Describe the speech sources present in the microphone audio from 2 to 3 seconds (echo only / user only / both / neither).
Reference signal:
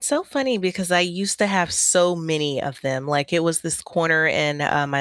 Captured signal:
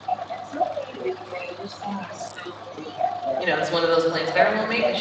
echo only